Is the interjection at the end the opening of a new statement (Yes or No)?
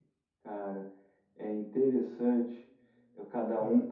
No